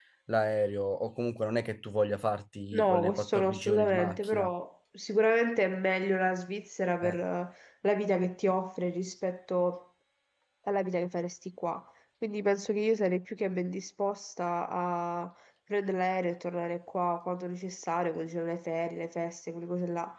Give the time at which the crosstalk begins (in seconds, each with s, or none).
2.7 s